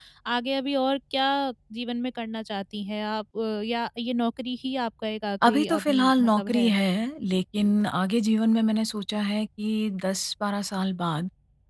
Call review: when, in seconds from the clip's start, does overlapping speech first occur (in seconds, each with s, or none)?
5.4 s